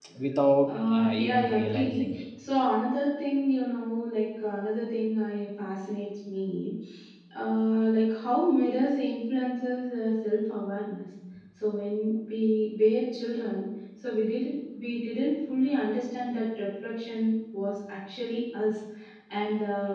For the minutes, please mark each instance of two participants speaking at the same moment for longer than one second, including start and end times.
0.7-2.0

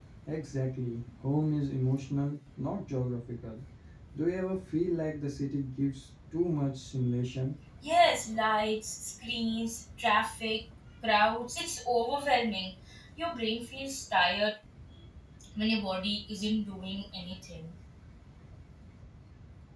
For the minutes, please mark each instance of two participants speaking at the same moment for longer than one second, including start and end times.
none

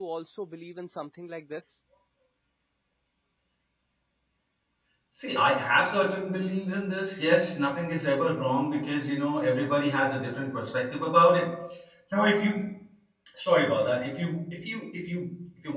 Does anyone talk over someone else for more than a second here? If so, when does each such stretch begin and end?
none

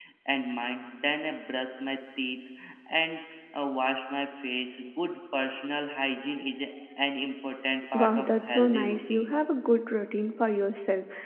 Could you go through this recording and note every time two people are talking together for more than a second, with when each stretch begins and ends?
7.9-9.4

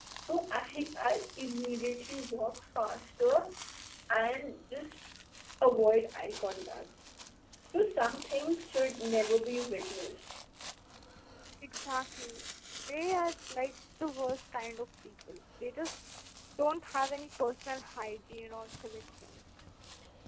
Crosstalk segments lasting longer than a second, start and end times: none

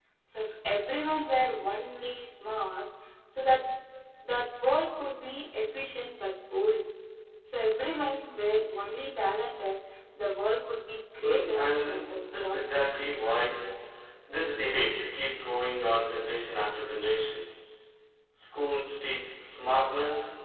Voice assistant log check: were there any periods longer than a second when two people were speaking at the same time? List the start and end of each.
11.2-12.6

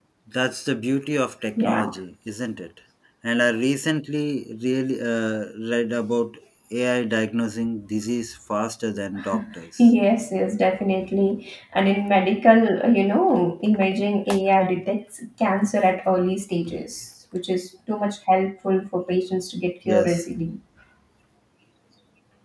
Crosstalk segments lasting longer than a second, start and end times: none

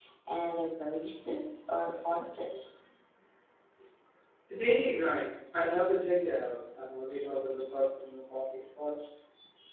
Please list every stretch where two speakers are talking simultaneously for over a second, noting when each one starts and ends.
none

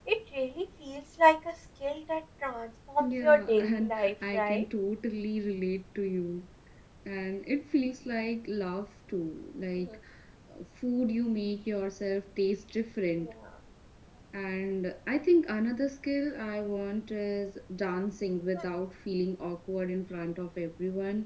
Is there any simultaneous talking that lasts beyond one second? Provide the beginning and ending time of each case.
3.0-4.6

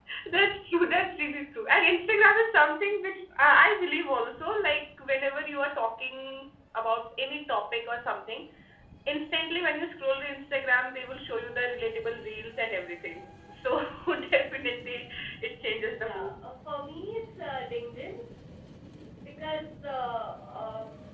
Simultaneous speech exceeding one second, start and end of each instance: none

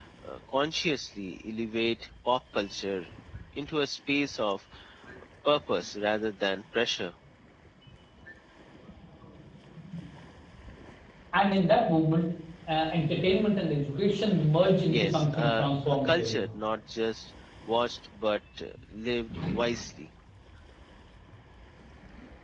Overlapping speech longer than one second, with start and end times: 14.9-16.4

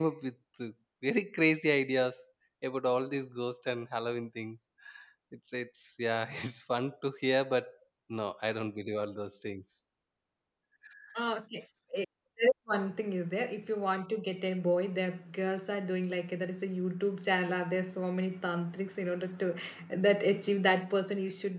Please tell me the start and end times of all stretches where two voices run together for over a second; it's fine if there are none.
none

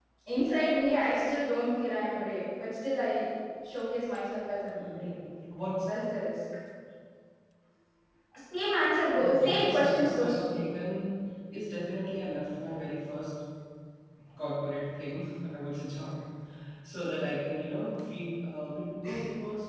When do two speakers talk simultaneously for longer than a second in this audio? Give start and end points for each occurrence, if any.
9.2-10.7

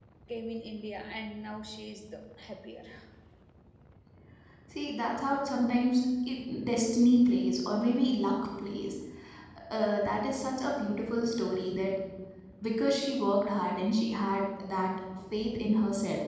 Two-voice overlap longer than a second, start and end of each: none

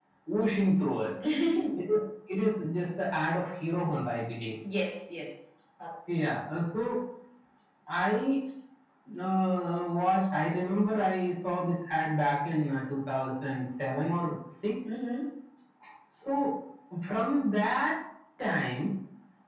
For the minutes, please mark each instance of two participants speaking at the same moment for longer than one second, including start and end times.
none

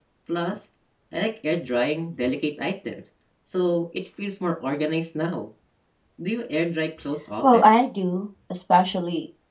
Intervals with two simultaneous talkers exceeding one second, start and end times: none

